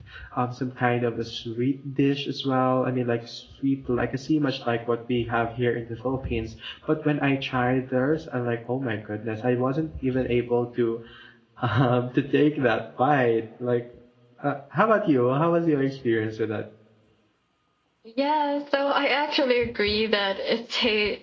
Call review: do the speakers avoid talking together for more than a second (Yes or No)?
Yes